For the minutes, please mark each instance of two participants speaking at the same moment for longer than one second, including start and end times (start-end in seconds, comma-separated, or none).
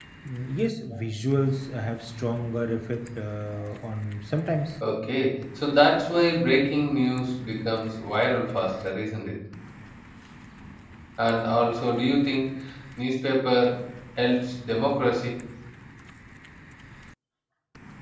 none